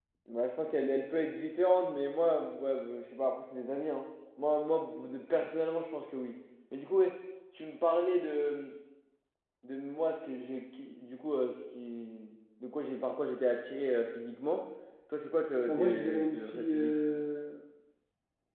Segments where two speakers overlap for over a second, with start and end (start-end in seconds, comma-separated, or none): 15.7-17.0